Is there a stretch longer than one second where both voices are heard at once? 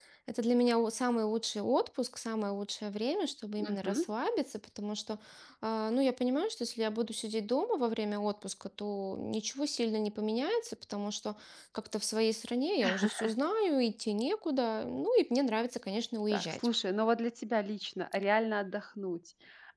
No

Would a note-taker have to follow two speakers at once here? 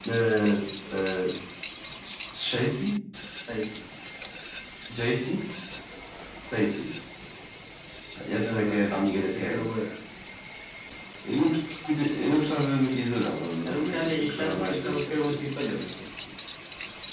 Yes, from 8.5 s

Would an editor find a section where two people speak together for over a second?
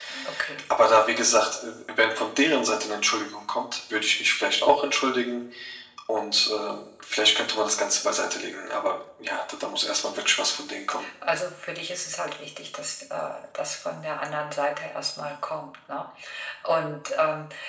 No

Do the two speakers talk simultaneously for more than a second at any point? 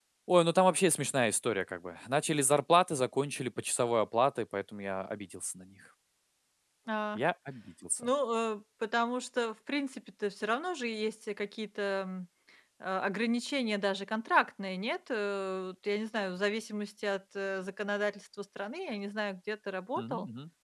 No

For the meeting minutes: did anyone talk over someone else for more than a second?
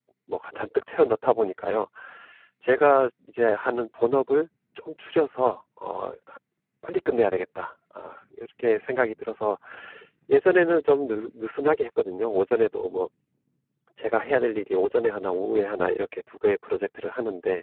No

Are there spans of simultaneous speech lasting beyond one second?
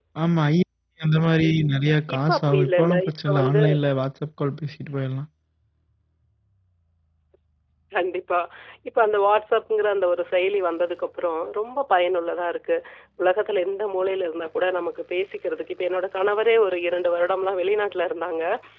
Yes, from 2.1 s

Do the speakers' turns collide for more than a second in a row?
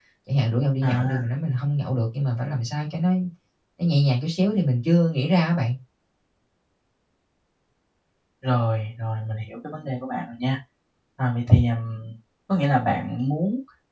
No

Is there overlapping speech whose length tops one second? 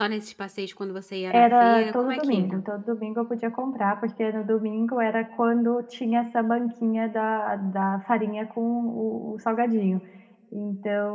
Yes, from 1.3 s

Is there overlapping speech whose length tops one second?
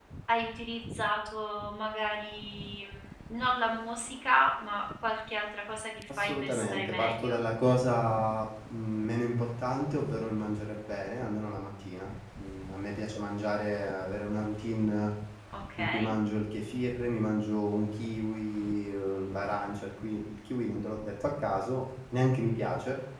Yes, from 6.2 s

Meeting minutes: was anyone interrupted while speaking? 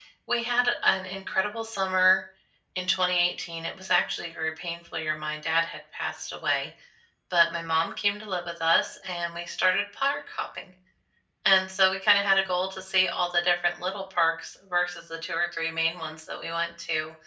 No

